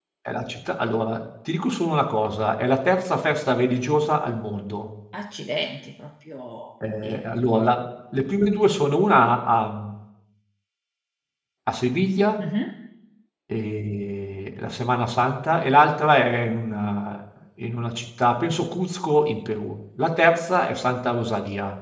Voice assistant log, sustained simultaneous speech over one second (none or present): none